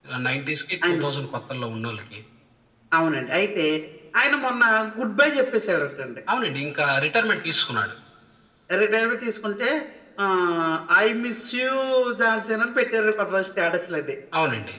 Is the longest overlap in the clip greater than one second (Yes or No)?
No